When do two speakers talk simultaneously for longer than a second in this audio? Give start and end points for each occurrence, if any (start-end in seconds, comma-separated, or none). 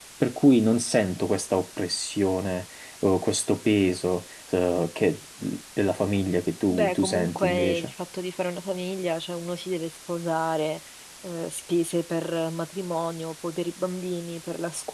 6.7-7.9